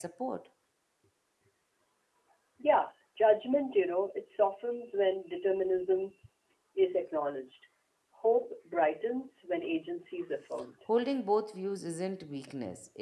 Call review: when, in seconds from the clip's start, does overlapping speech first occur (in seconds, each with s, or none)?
none